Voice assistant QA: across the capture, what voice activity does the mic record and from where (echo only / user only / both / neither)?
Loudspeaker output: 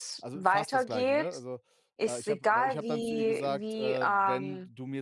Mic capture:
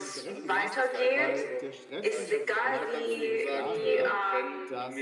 both